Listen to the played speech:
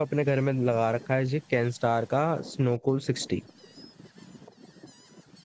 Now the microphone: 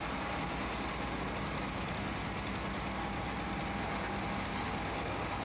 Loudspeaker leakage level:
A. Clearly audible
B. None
B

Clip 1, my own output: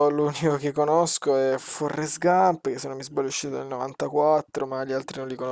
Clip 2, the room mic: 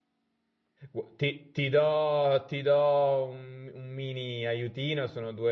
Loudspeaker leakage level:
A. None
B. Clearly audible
A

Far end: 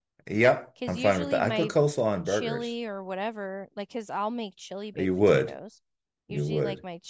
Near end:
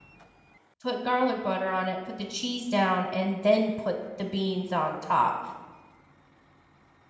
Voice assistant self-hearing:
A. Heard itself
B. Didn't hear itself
B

